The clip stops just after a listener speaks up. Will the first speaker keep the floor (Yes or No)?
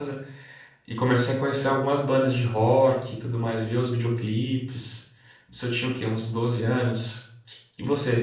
Yes